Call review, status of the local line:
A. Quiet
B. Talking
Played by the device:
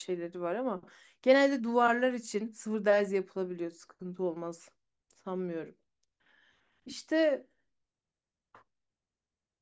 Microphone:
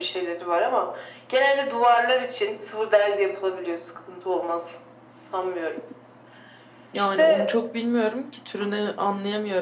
B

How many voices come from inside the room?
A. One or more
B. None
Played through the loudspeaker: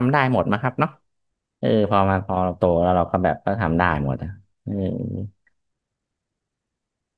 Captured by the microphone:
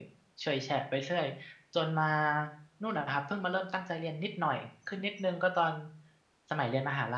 A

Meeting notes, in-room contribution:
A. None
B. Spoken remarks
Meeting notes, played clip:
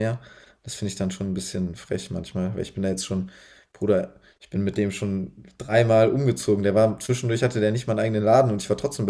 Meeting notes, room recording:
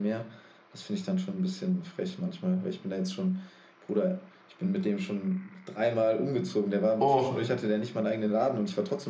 B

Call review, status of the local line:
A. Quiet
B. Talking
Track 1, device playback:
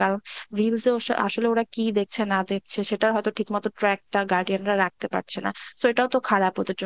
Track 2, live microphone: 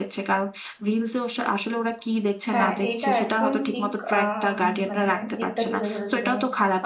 B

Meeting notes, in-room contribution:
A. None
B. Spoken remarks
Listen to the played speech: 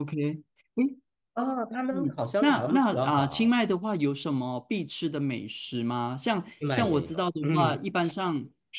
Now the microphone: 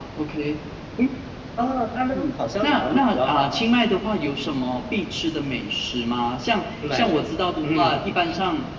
A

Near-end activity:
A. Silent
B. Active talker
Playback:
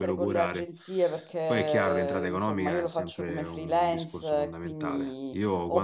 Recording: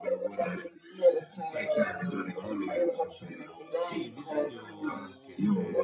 B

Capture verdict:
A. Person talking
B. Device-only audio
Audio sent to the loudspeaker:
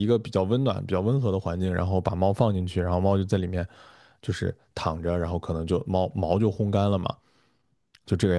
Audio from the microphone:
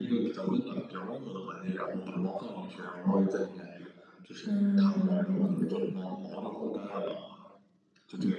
A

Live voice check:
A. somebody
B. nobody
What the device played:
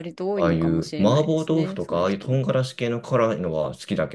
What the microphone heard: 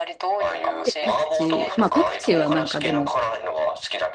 A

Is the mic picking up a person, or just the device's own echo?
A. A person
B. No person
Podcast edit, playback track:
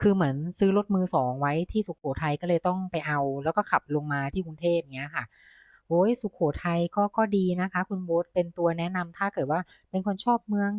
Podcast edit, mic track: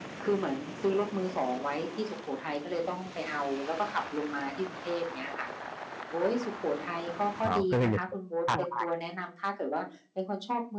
A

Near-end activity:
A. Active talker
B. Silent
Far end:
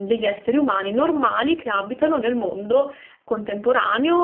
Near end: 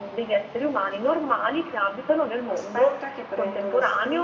A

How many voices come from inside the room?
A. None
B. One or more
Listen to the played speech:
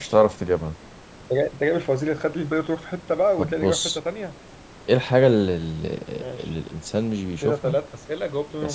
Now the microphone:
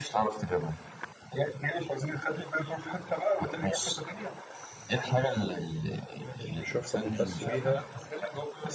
B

